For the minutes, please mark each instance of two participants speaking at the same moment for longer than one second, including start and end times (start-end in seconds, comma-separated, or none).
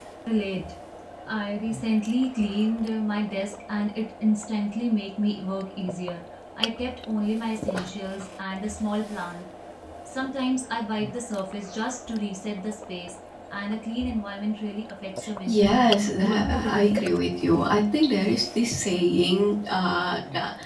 15.5-17.0